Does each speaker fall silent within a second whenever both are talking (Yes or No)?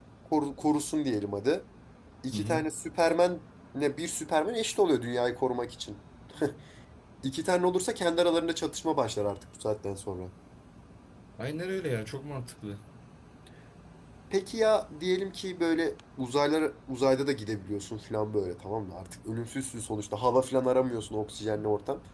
Yes